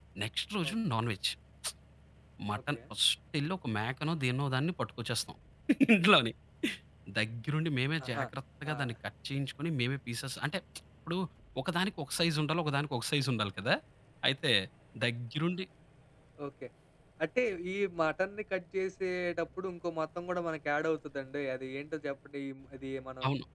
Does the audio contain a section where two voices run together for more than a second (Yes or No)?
No